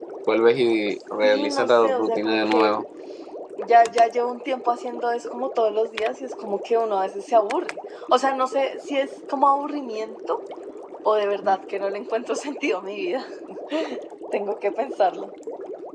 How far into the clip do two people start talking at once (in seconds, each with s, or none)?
1.2 s